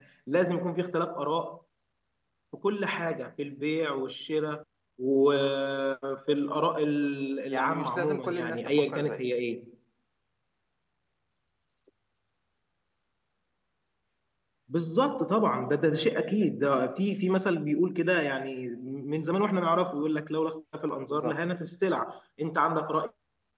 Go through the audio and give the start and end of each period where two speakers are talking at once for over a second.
7.5-9.2

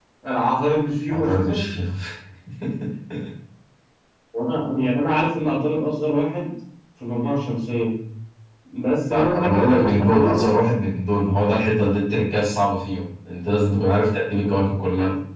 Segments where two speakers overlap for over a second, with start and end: 9.1-10.4

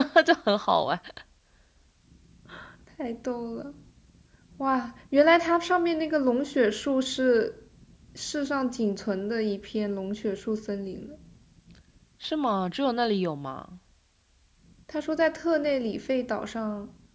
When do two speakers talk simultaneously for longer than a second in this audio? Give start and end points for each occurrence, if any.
none

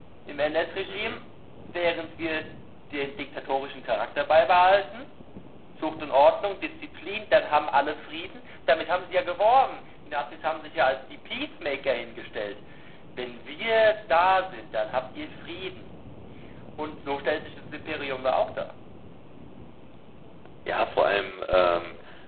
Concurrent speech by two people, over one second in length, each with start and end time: none

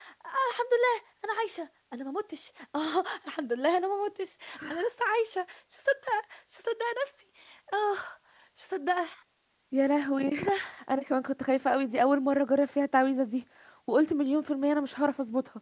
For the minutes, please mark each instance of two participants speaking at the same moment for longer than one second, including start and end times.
none

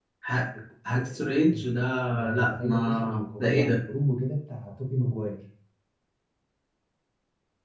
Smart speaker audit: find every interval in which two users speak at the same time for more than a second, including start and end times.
2.3-3.8

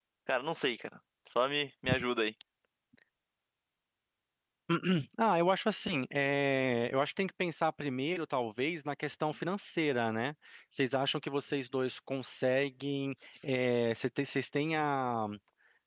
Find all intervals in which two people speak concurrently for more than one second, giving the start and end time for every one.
none

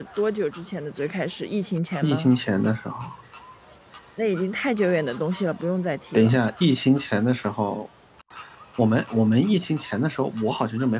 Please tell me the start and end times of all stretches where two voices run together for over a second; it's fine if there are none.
none

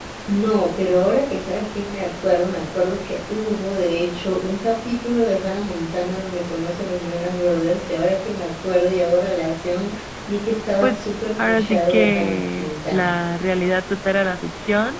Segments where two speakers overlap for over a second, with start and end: 10.8-13.1

